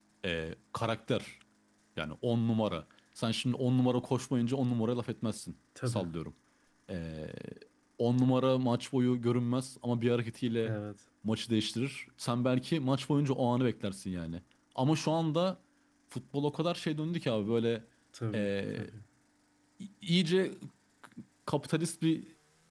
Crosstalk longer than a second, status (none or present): none